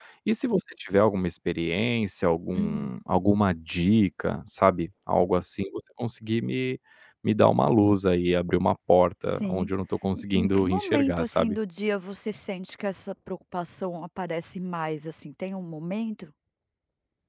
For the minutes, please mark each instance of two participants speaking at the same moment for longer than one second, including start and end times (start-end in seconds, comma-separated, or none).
10.1-11.6